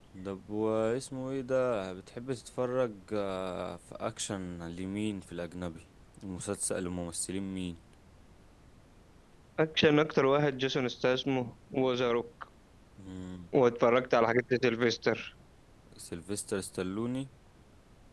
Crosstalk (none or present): none